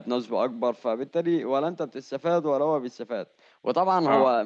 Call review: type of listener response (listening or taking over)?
listening